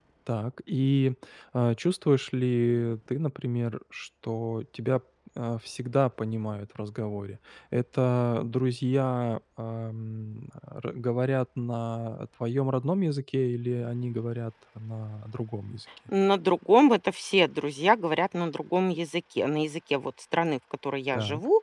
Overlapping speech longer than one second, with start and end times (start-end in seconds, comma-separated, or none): none